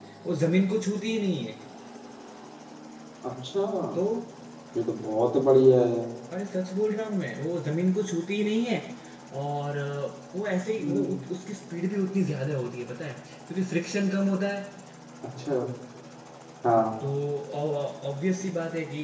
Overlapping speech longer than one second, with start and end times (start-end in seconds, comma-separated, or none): none